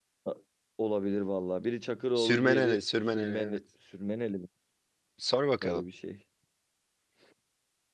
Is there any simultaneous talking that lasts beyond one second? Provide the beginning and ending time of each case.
2.1-3.6

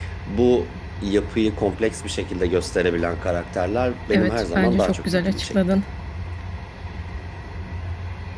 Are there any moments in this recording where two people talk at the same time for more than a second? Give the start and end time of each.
4.1-5.6

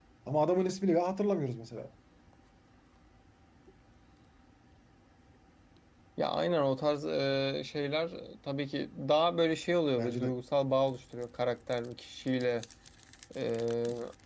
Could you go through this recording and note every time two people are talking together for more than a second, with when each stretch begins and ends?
none

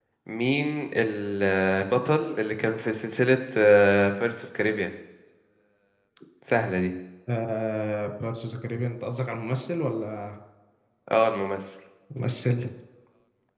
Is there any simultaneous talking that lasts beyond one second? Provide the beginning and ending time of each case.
none

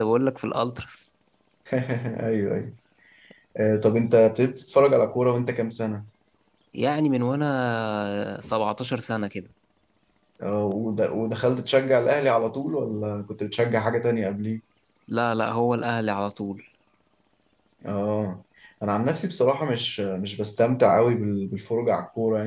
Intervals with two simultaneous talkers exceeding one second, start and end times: none

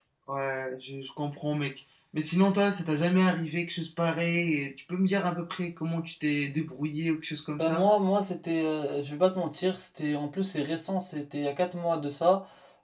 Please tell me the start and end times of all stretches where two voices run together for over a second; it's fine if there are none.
none

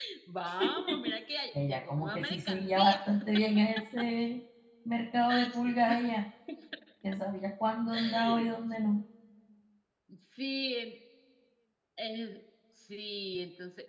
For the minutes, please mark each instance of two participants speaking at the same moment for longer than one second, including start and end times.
1.6-3.0

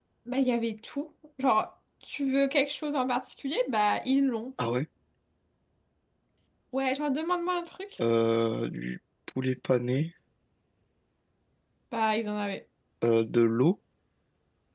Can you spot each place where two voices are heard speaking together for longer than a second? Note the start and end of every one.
none

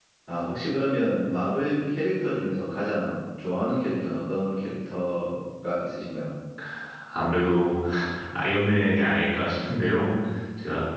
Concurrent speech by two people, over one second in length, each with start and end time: none

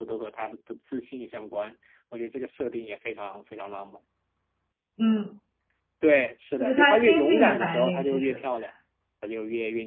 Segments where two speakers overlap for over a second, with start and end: 6.6-8.4

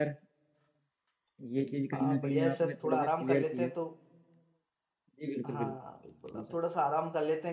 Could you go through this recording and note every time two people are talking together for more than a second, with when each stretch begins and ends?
1.9-3.7

